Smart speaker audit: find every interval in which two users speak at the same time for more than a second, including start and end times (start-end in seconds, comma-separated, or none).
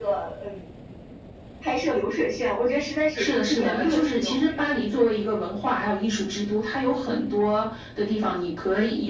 3.1-4.7